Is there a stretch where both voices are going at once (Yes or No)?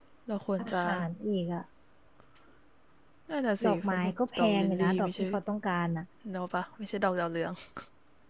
Yes